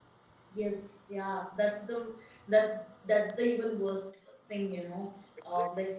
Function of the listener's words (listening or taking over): listening